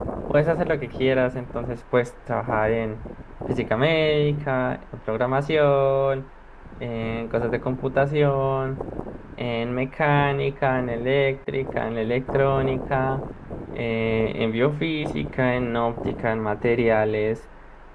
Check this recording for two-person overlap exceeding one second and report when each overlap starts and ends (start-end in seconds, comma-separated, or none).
none